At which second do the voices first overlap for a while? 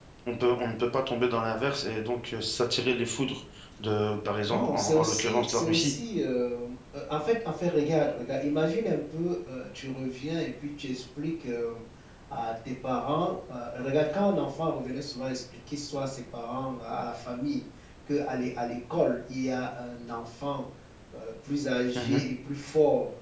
4.5 s

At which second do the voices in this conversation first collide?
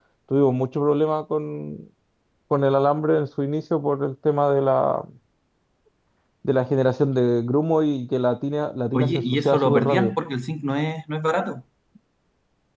8.9 s

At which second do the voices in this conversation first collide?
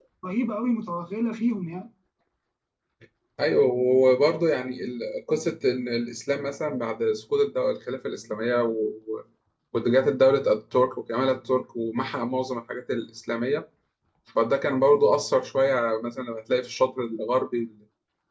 none

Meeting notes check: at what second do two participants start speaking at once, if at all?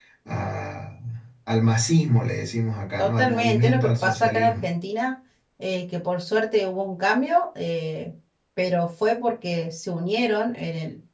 3.0 s

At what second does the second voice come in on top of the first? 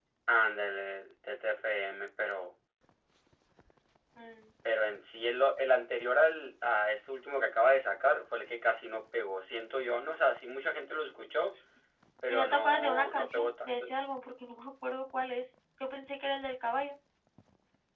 12.3 s

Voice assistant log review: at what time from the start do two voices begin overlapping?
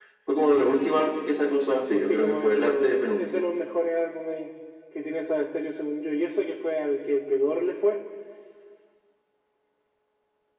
1.8 s

